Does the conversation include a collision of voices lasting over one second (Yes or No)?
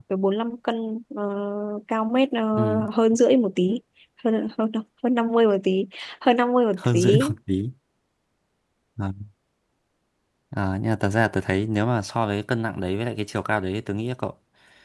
No